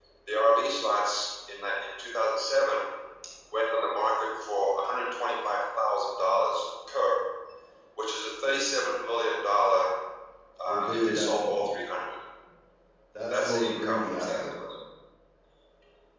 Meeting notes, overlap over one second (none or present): present